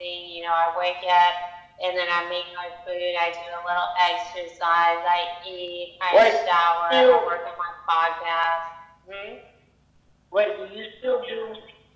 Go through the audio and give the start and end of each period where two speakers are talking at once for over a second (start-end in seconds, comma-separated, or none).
none